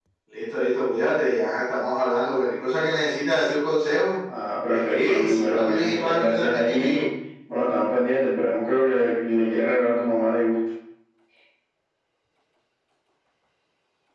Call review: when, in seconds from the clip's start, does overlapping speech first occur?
5 s

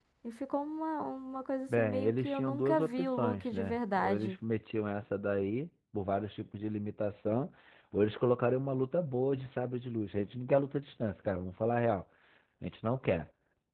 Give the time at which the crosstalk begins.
2 s

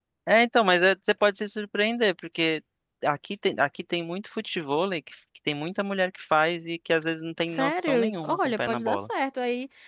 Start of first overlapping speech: 7 s

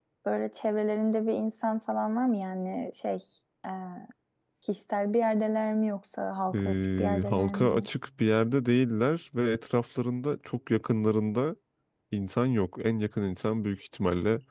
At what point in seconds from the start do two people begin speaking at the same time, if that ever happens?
7 s

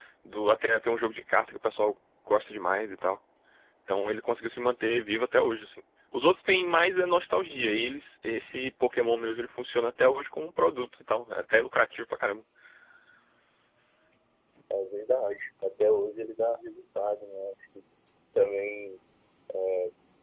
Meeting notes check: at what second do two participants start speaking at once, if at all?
none

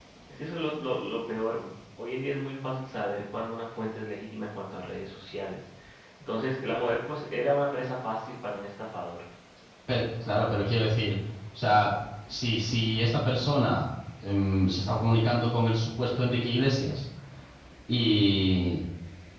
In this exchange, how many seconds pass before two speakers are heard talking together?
none

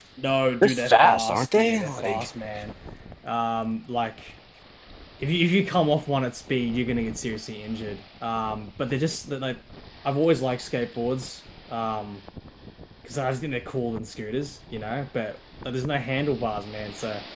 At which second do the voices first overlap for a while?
1 s

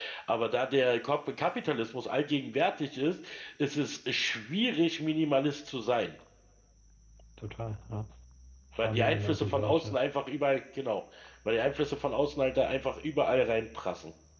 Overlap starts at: 9 s

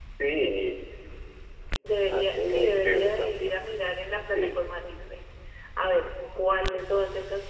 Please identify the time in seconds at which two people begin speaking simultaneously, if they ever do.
2 s

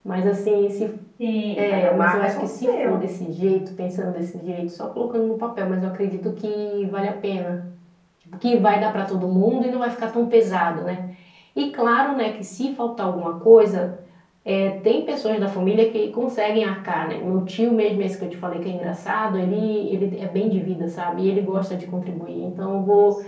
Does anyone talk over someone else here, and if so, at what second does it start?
2 s

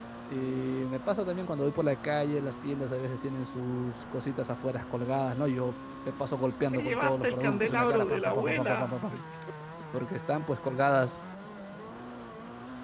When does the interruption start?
7 s

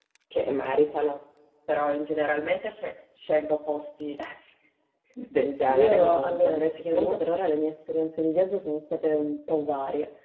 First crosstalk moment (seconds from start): 6 s

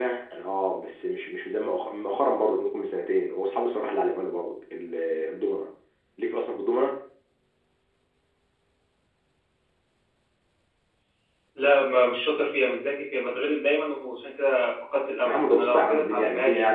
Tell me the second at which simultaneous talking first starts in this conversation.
15 s

